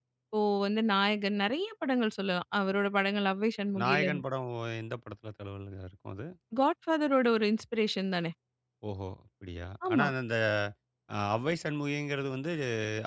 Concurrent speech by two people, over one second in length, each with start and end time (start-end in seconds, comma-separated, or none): none